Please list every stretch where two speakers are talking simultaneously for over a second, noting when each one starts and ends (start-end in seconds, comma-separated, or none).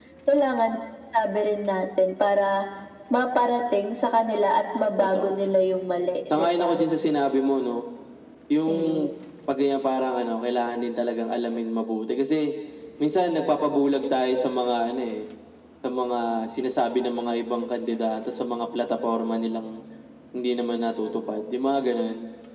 none